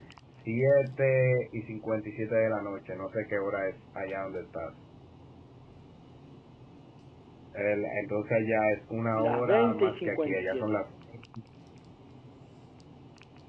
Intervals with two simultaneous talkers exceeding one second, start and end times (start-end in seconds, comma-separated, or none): 9.2-10.8